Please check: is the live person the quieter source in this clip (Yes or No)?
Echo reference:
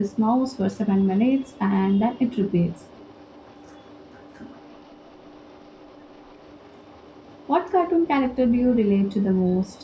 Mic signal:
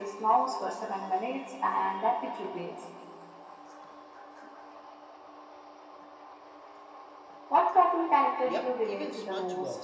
Yes